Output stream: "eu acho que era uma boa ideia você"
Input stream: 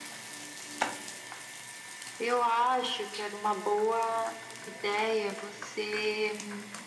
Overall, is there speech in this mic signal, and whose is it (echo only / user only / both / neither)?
echo only